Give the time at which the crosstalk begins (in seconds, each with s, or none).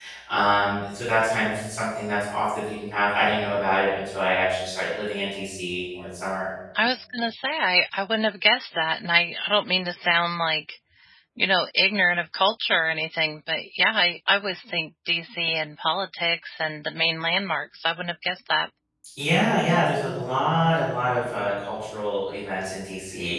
none